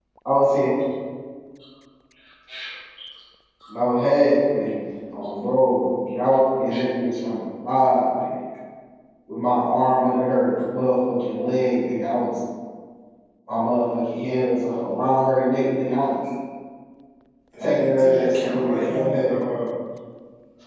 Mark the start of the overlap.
17.6 s

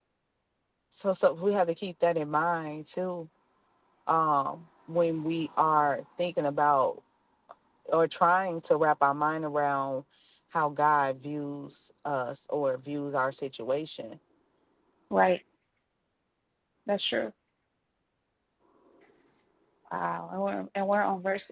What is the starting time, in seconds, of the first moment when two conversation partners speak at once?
none

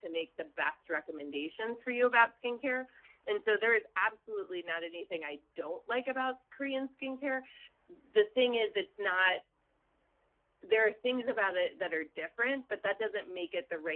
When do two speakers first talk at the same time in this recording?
none

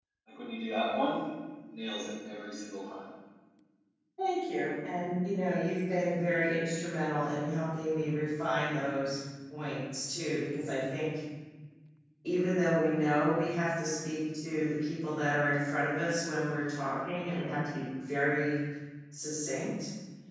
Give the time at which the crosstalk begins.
none

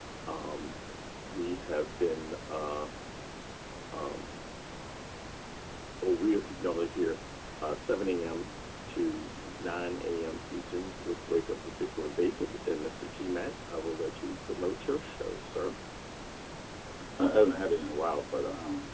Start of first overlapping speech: none

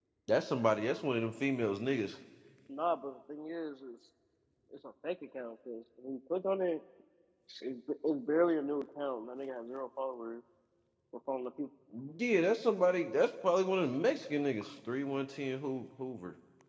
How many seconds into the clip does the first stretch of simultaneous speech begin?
none

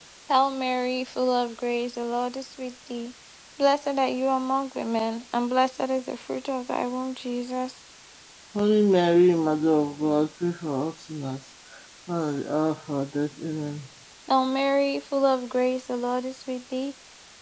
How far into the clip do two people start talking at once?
none

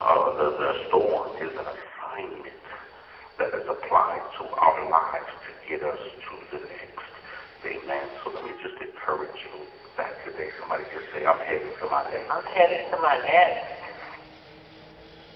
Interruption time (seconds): 11.9 s

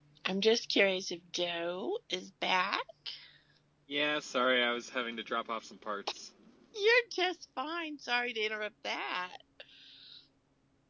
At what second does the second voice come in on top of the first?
none

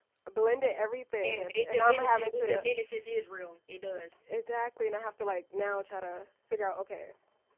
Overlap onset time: 1.2 s

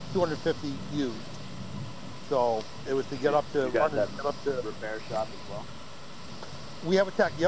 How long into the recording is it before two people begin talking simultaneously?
2.9 s

